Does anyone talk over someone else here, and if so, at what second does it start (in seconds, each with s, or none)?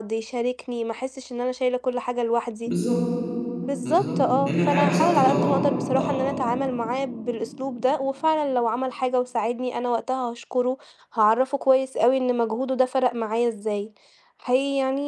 3.8 s